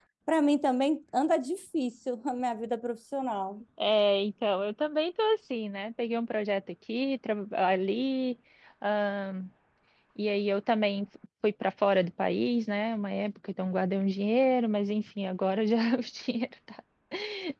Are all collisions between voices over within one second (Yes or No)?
Yes